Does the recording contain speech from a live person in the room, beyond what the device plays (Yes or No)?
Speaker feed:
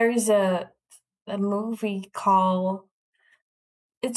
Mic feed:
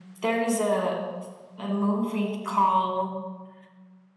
No